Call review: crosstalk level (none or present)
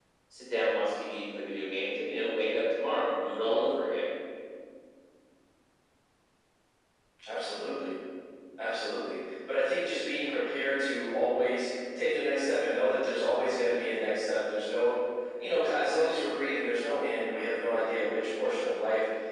none